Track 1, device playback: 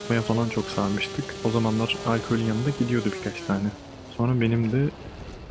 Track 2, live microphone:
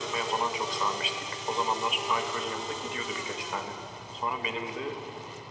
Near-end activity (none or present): none